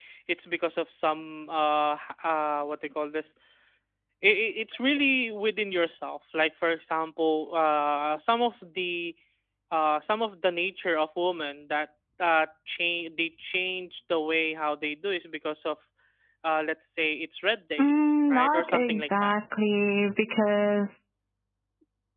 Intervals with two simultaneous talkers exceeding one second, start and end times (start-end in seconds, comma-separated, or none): 17.8-19.4